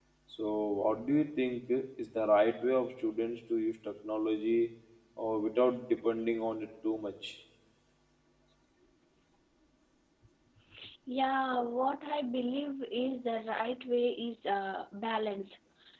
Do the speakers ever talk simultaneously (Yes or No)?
No